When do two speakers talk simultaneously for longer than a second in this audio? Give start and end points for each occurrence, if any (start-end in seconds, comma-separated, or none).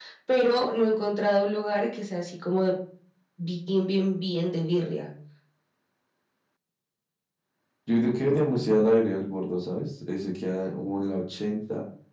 none